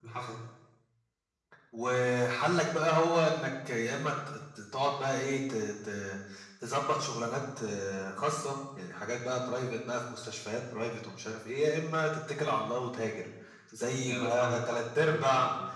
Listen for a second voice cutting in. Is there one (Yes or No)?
Yes